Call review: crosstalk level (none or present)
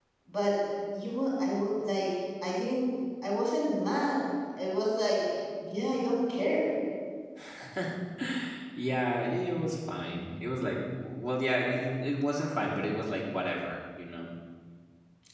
none